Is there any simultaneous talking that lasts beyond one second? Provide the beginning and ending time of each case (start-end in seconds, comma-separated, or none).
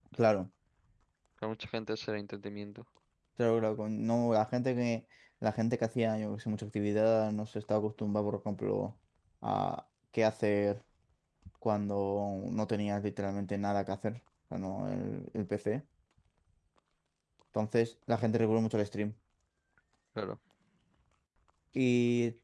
none